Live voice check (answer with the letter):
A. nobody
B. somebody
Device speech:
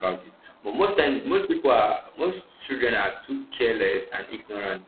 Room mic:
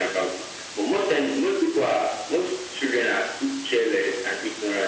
A